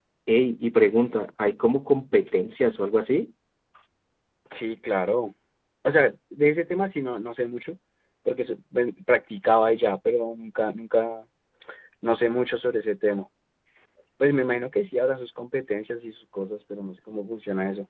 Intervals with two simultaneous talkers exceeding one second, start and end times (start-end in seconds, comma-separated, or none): none